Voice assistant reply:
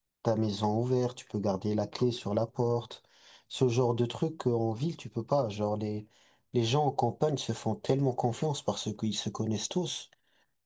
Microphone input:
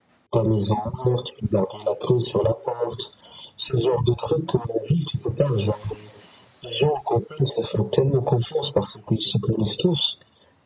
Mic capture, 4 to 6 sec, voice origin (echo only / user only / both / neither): echo only